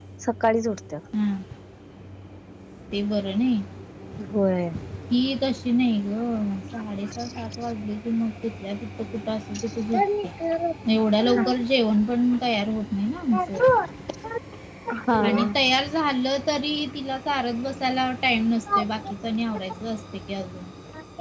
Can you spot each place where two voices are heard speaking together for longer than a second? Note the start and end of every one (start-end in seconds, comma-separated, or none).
none